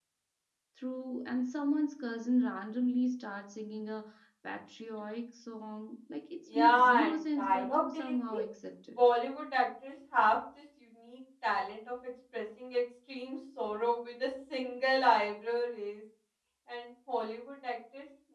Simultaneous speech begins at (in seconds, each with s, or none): 6.5 s